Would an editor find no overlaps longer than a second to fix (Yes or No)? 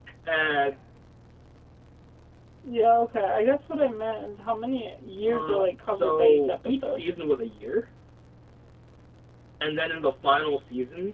No